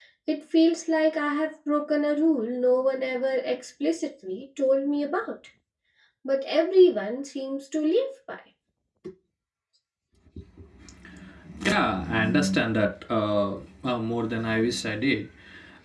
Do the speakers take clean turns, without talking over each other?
Yes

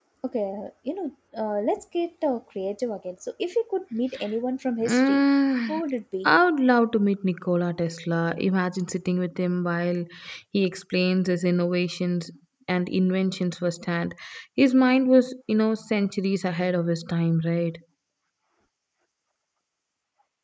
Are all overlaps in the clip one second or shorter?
Yes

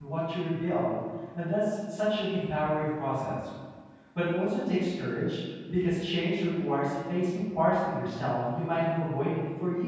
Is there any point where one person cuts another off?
No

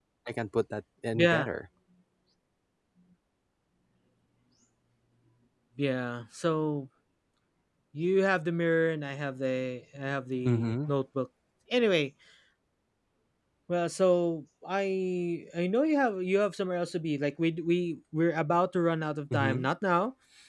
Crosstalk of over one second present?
No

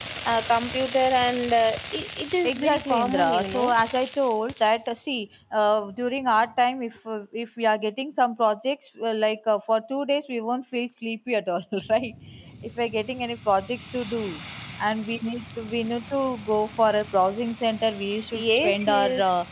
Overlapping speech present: Yes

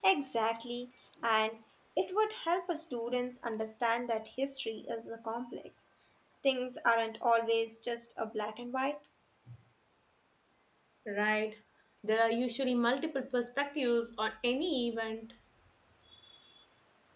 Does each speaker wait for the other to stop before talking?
Yes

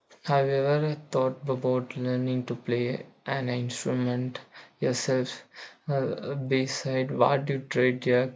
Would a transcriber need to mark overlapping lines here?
No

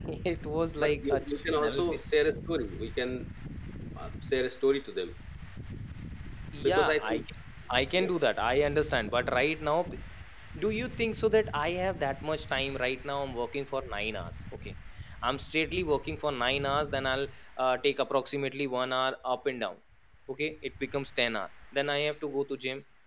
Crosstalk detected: Yes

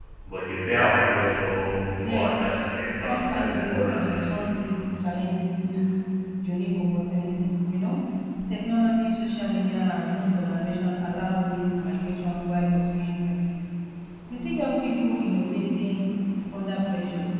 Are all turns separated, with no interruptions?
No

